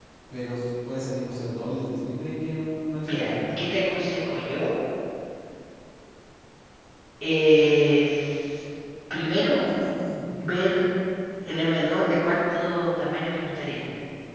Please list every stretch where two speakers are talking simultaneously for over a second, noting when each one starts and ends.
none

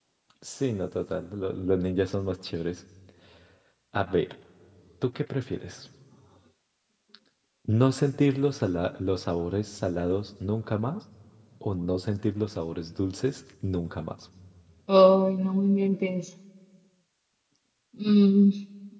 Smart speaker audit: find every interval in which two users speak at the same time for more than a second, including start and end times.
none

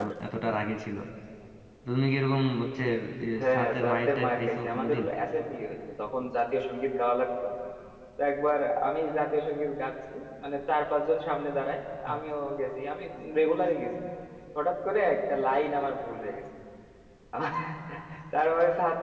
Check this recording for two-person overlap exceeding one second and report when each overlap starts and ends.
3.4-5.0

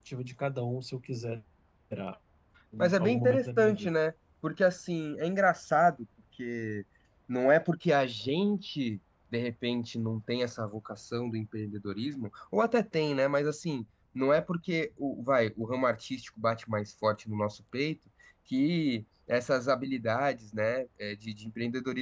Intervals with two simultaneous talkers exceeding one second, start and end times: 2.8-4.0

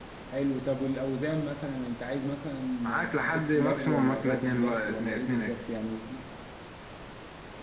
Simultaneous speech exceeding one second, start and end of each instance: 2.8-5.5

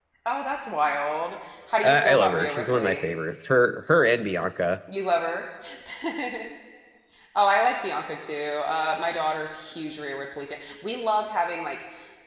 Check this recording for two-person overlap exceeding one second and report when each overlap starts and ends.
1.8-3.0

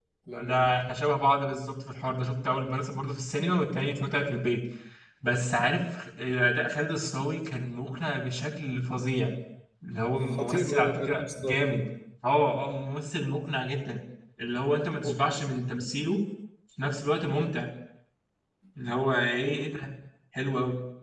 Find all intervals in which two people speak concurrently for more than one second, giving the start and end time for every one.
10.3-11.6

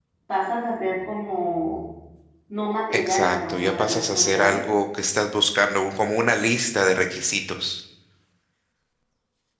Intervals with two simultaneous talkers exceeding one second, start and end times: 2.9-4.6

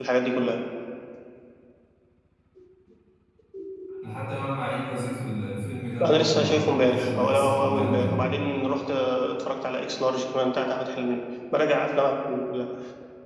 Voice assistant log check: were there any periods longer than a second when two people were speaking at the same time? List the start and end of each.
6.0-8.2

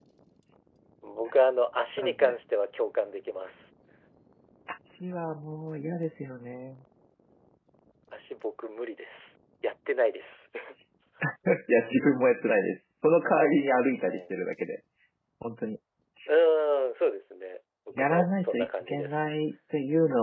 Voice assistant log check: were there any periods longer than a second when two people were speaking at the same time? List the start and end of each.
18.0-19.2

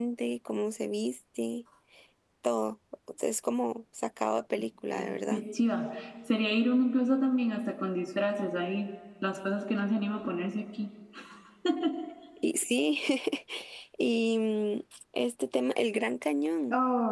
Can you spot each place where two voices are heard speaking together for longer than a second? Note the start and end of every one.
none

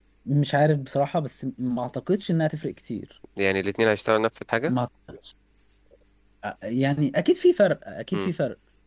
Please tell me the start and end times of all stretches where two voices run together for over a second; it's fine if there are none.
none

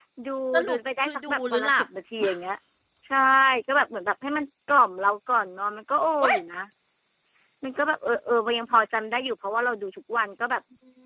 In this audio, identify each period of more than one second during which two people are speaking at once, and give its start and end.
0.7-1.9

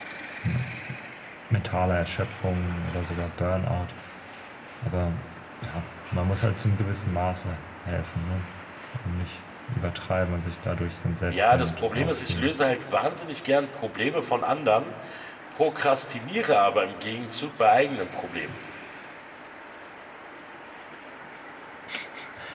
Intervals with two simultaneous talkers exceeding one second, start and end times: 11.3-12.5

